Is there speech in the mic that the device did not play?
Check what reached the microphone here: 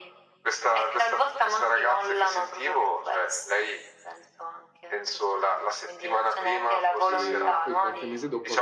Yes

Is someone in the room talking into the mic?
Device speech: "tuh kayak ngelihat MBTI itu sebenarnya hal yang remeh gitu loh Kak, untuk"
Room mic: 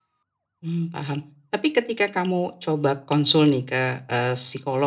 Yes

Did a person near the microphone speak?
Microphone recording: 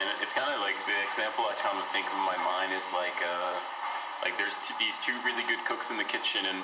No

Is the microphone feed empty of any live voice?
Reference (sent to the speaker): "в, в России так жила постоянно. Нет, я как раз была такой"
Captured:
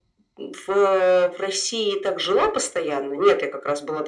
Yes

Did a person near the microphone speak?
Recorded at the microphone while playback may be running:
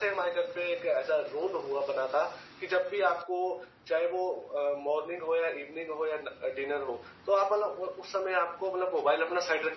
No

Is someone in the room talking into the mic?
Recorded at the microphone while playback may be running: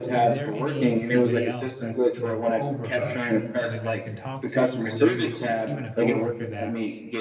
Yes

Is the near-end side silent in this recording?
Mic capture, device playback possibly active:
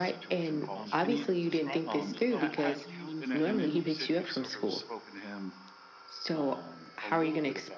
No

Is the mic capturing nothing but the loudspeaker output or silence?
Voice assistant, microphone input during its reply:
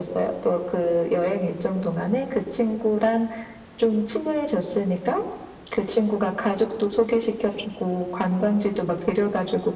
Yes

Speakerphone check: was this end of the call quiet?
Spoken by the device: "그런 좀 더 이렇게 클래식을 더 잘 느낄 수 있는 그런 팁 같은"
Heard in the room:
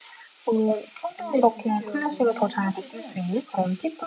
No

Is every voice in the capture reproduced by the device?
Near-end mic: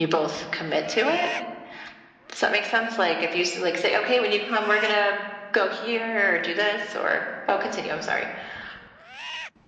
Yes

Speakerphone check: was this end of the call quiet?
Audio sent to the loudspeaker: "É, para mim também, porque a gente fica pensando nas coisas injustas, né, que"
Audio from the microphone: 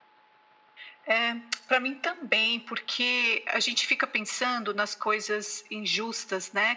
Yes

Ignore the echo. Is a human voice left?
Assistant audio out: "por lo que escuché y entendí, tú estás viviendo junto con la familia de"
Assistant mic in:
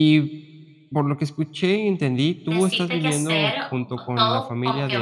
Yes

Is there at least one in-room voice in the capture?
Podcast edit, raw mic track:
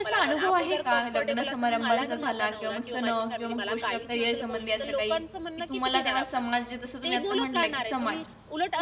Yes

